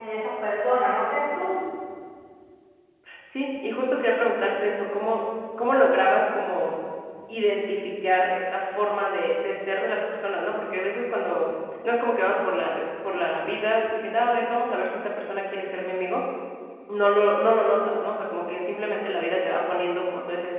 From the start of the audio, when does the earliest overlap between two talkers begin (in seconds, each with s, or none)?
none